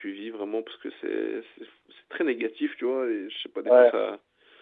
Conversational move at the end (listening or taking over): listening